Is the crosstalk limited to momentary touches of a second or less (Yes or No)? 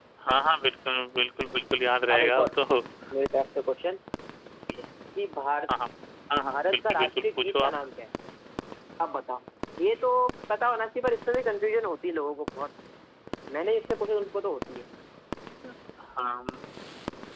No